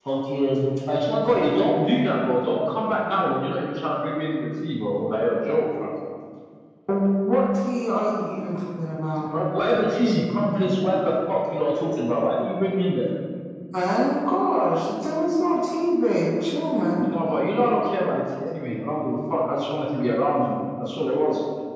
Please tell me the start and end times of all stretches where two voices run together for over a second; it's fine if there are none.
none

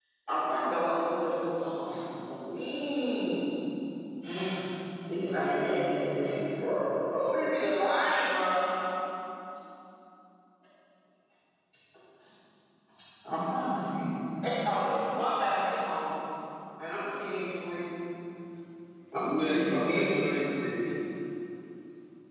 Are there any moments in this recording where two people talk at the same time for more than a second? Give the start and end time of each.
19.2-20.5

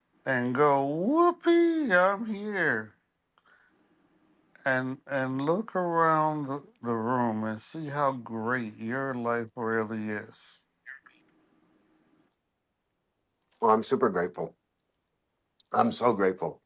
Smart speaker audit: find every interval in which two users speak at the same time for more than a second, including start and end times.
none

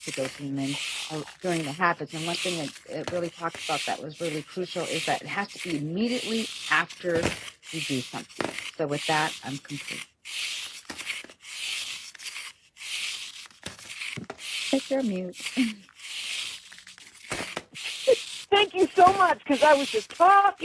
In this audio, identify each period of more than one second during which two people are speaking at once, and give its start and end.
none

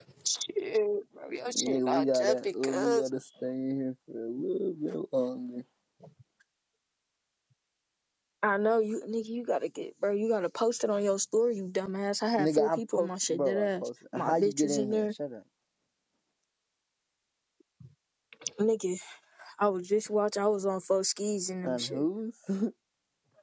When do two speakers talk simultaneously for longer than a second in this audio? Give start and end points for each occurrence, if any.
1.5-3.1, 12.4-15.1

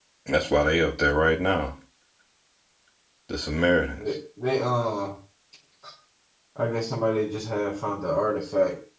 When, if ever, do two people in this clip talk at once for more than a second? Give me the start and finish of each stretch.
none

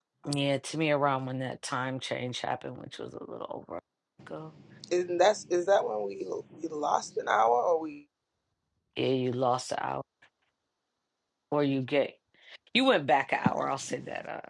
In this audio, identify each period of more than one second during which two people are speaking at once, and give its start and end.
none

